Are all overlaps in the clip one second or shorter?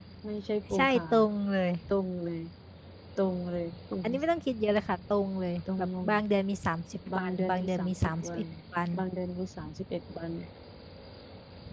No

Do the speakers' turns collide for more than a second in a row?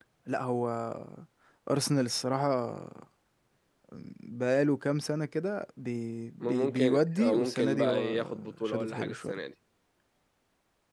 Yes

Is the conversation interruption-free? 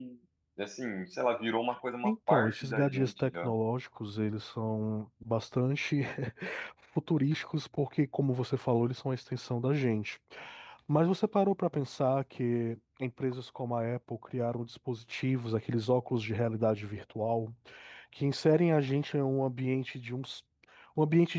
No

